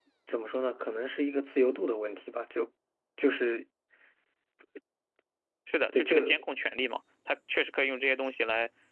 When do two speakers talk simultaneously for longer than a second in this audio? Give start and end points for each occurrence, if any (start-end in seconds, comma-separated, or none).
none